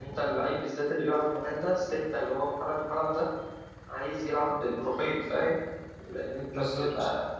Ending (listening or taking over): listening